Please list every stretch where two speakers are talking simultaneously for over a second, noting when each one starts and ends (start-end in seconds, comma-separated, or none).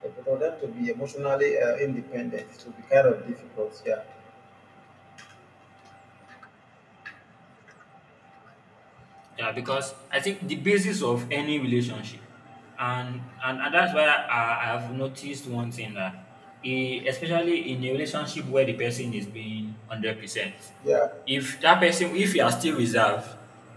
none